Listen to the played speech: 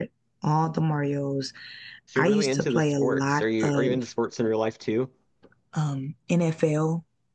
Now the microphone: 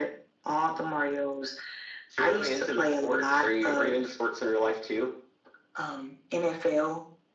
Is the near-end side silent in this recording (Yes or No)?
Yes